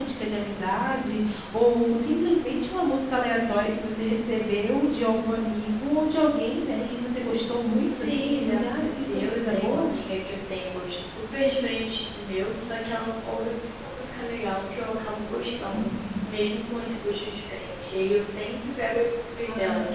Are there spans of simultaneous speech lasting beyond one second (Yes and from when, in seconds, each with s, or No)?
Yes, from 8.0 s